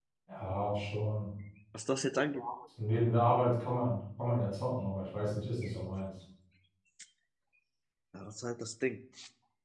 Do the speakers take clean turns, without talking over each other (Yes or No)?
Yes